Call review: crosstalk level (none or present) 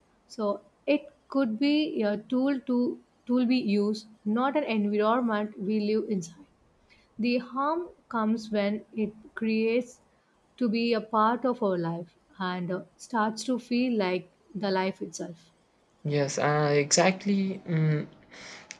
none